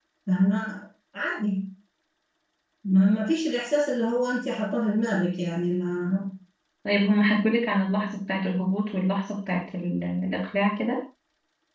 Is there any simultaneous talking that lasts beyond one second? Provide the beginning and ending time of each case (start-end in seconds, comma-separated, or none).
none